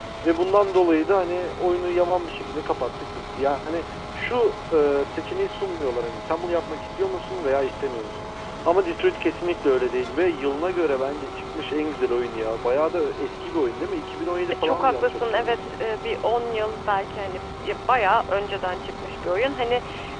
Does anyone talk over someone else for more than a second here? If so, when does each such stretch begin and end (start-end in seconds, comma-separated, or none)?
14.5-15.7